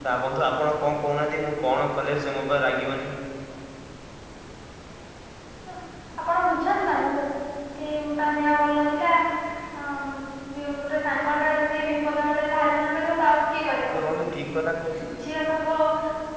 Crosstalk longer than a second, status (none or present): none